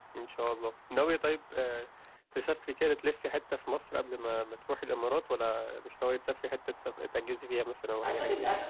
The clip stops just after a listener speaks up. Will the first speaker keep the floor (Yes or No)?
No